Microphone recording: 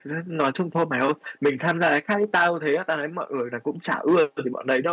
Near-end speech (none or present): present